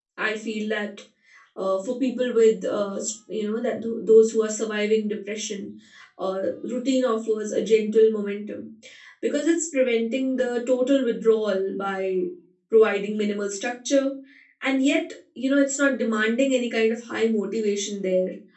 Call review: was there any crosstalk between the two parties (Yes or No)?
No